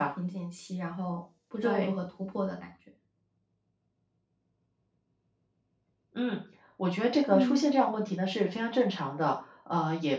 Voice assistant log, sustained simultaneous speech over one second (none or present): none